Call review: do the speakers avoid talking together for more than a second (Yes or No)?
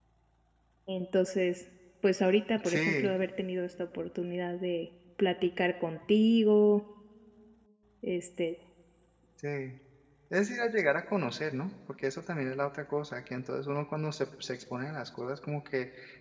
Yes